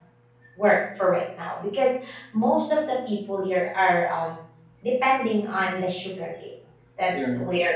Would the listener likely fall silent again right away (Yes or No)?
Yes